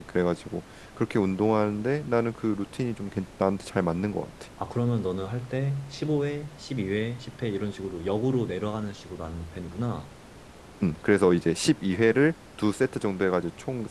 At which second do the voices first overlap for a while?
none

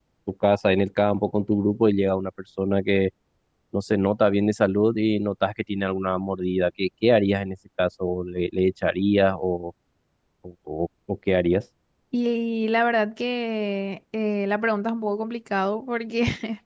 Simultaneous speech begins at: none

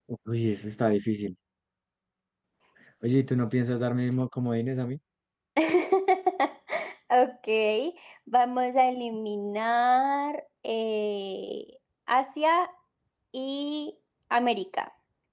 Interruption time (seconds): none

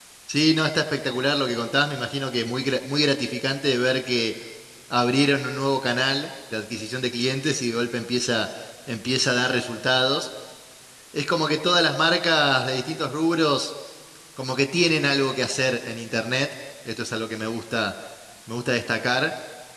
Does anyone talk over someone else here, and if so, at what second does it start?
none

